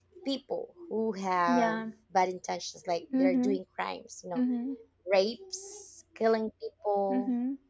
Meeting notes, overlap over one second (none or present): none